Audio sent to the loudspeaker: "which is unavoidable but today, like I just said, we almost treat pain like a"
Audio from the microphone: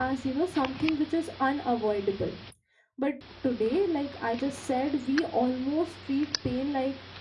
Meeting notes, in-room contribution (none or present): none